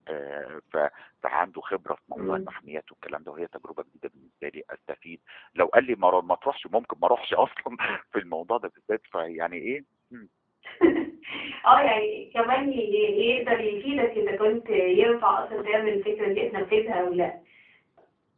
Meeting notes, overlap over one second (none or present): none